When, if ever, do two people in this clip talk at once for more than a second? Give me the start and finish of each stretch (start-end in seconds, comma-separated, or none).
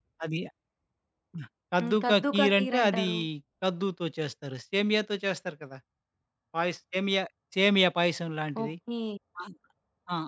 1.8-3.1